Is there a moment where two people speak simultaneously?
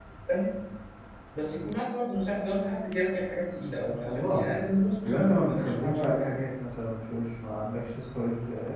Yes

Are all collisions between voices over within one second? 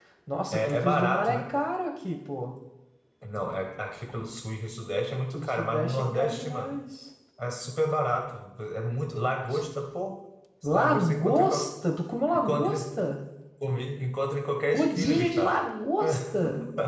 No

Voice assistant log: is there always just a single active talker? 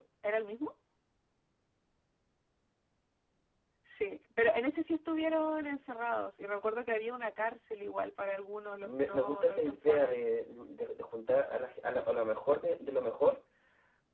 No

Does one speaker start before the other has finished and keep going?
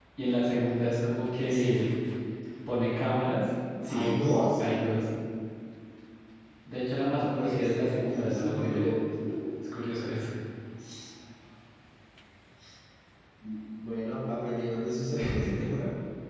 Yes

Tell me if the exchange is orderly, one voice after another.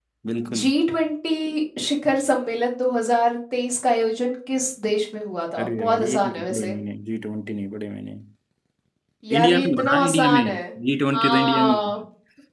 No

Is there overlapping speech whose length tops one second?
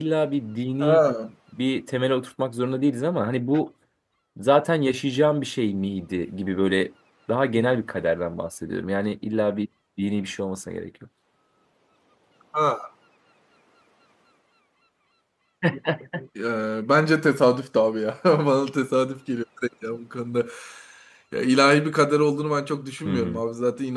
No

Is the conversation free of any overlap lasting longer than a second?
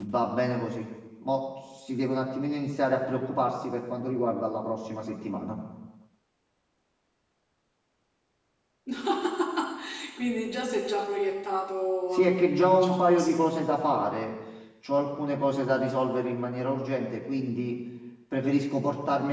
No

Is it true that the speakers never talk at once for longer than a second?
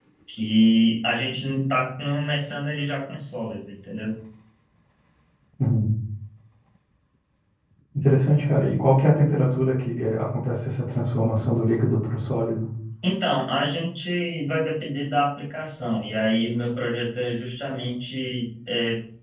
Yes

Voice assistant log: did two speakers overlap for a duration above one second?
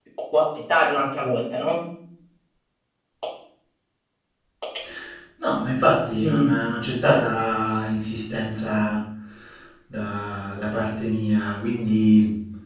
No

